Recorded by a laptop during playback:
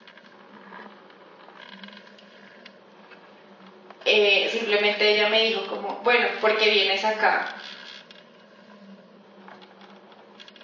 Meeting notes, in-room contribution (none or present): present